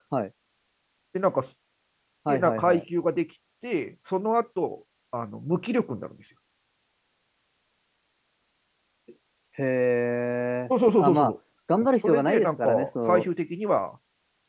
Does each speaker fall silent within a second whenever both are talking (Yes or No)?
No